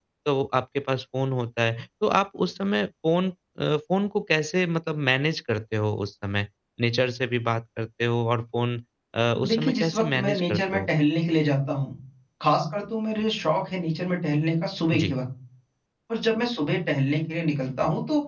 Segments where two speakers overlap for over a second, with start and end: 9.4-10.9

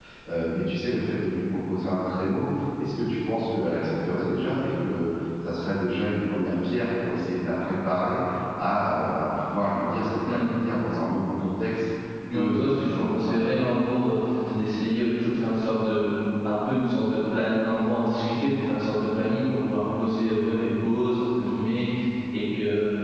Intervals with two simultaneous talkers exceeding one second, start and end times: 12.3-13.5

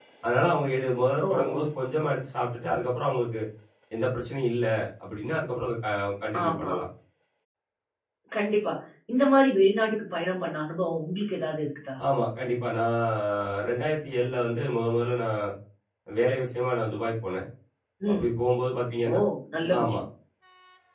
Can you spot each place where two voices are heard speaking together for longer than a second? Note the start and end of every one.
none

